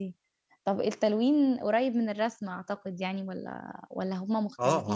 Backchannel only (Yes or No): No